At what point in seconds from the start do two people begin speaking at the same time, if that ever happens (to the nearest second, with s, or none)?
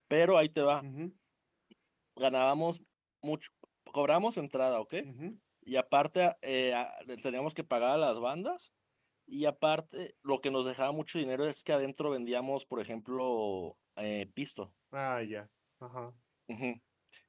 none